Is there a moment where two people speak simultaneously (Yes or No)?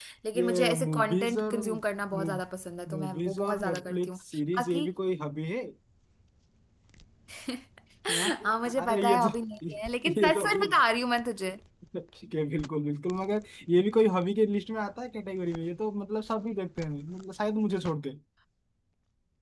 Yes